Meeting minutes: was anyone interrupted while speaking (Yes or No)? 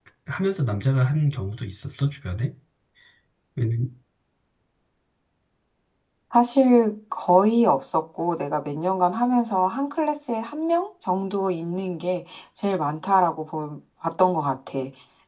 No